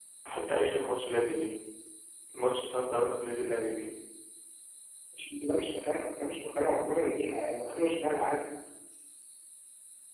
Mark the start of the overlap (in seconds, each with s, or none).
none